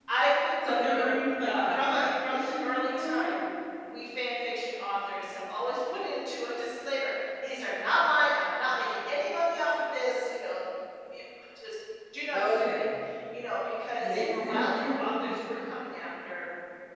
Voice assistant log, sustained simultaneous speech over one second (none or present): present